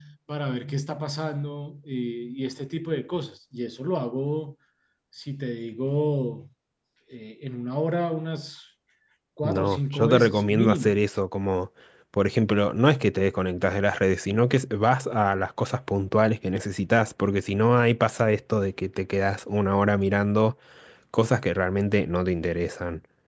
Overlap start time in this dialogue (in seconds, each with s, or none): 9.4 s